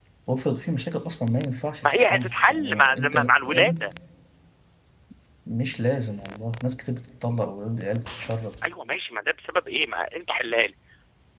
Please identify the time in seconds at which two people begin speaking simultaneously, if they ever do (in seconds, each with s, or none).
1.8 s